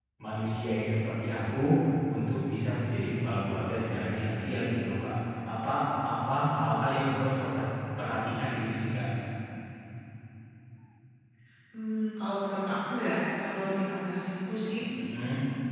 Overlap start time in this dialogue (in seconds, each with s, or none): none